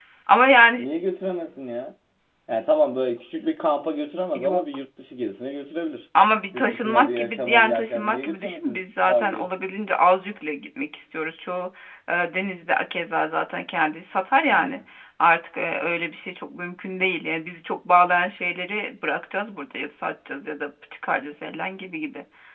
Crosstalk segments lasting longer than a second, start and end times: 6.5-9.4

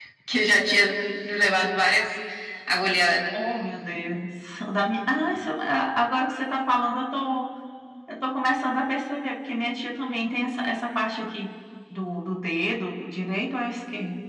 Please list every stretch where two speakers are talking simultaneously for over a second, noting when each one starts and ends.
none

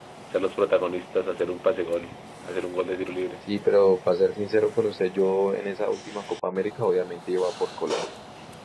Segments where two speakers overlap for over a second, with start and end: none

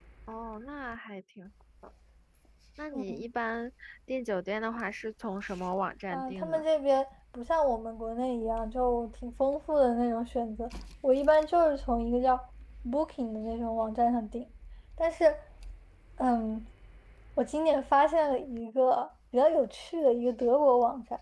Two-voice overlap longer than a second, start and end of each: none

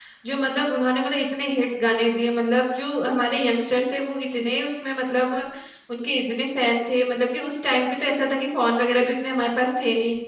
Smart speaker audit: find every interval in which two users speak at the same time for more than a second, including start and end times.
none

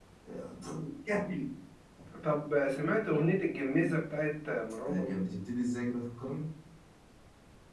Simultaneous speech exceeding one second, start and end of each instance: none

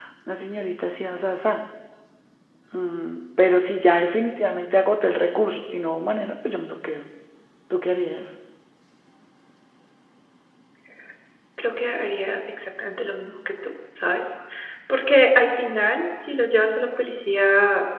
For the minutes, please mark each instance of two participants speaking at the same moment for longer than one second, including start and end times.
none

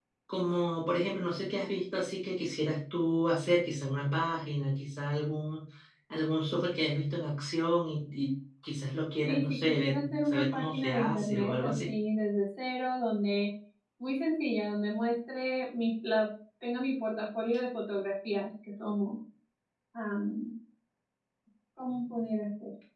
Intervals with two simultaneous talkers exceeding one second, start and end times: 9.2-11.9

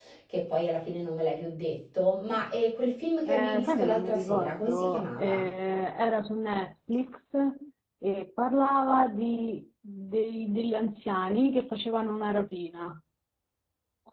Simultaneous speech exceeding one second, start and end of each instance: 3.3-5.5

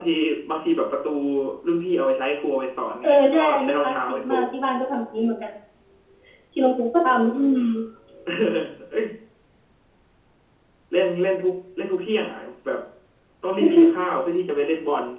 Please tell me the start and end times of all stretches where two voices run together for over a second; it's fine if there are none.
3.0-4.3

